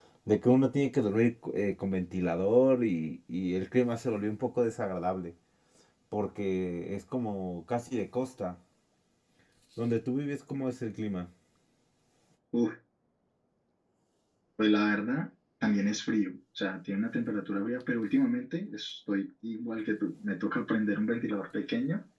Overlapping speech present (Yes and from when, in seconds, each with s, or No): No